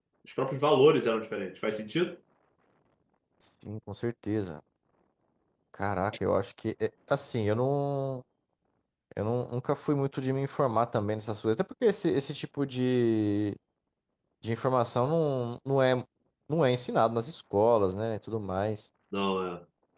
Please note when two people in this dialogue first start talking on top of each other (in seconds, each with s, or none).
none